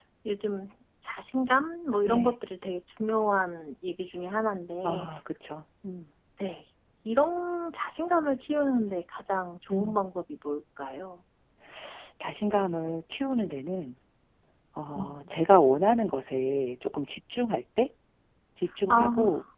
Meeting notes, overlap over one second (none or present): none